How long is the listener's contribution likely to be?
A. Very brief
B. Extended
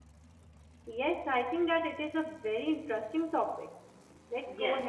B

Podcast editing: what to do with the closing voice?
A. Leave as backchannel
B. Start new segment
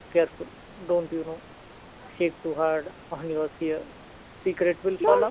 B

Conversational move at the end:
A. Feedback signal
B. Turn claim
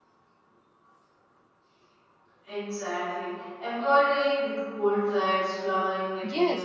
B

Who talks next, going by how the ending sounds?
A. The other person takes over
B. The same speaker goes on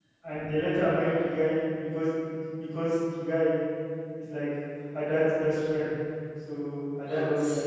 B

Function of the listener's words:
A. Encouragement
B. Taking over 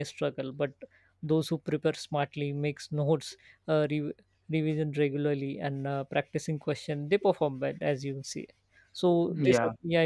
A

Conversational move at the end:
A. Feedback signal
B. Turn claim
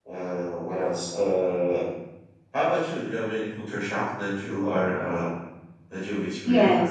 B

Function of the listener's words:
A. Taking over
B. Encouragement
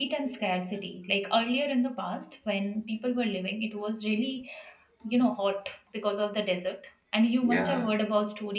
B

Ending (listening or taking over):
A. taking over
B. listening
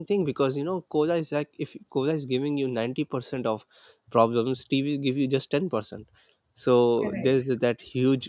B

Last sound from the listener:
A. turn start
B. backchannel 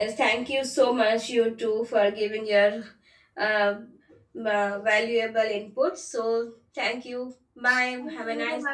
A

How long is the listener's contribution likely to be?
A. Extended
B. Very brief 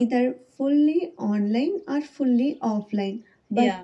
B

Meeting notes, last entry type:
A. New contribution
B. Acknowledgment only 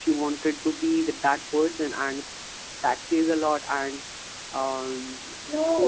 A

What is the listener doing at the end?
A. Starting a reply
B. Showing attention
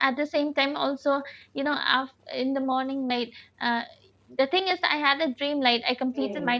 B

